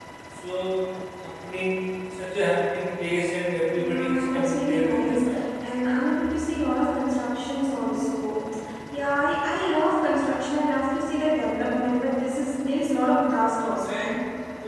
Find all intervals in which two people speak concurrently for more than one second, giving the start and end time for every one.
3.8-5.2

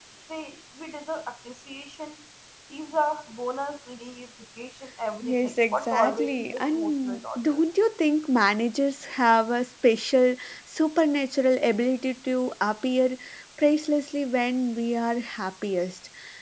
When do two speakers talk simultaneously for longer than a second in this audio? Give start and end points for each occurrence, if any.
5.2-7.6

